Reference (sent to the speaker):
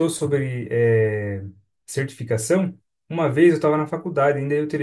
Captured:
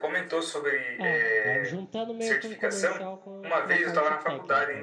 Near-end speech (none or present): present